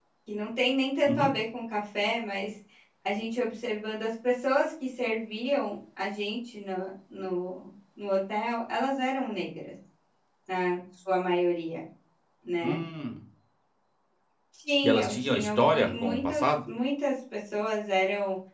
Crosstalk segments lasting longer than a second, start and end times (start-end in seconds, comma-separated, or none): 14.8-16.5